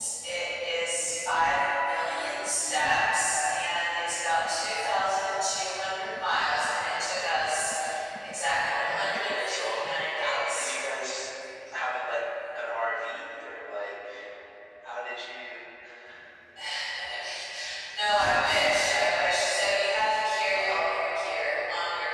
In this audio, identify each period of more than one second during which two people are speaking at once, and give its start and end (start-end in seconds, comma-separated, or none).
8.6-9.8